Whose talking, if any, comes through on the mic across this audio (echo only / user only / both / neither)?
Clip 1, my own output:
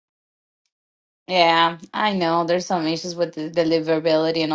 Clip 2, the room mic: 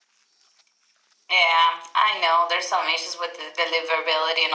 echo only